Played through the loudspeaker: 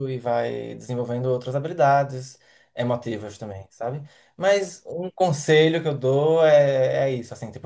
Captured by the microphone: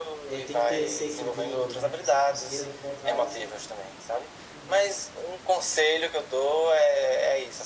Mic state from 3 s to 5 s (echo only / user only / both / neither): both